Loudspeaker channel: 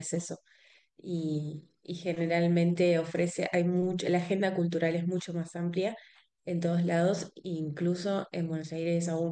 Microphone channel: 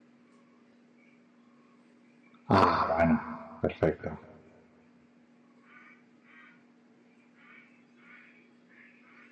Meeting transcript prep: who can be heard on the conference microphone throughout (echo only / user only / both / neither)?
user only